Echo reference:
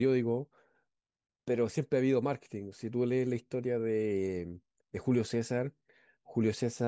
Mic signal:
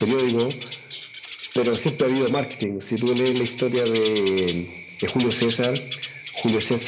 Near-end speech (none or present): none